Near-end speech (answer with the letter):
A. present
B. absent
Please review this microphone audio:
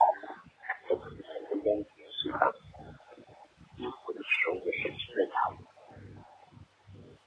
B